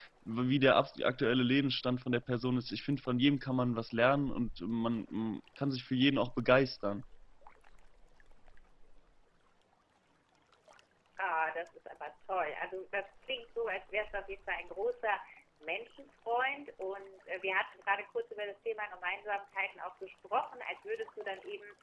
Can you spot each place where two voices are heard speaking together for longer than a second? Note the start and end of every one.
none

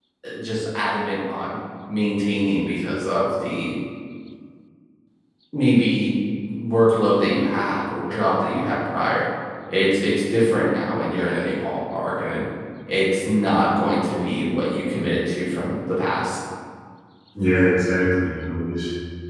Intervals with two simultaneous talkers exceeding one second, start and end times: none

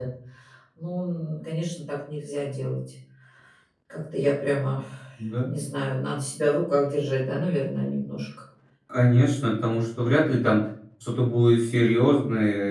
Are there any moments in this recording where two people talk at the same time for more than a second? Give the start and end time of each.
none

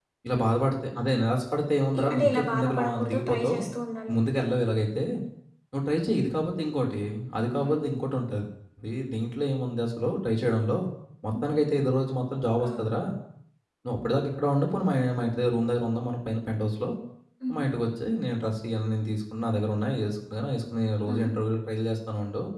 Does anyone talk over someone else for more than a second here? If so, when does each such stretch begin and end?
2.0-3.6

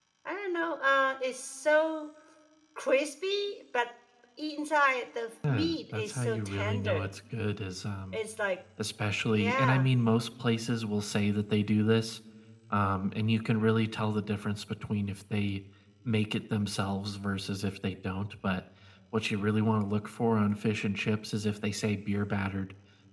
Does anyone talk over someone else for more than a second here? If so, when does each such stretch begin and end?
5.5-7.1

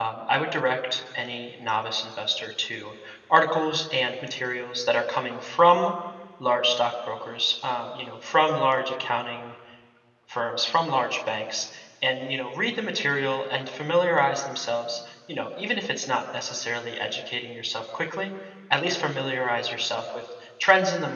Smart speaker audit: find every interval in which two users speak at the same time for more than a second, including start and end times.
none

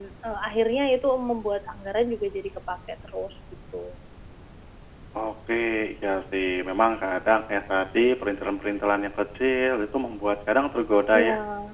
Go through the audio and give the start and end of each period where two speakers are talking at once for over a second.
none

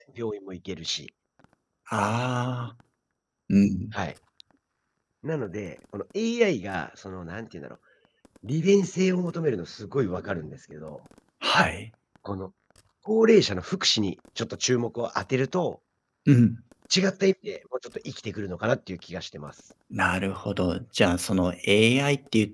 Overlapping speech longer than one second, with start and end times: none

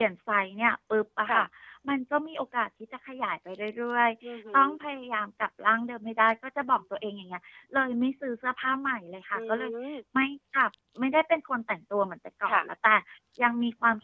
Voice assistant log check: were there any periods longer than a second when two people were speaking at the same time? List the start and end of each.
none

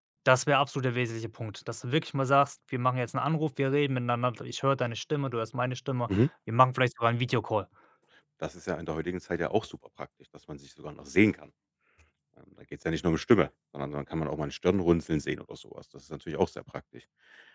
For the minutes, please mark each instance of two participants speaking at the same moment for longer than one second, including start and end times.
none

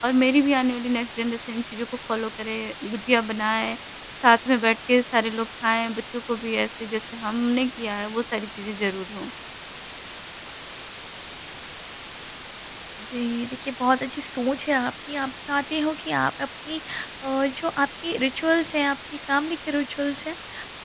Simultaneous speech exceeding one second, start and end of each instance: none

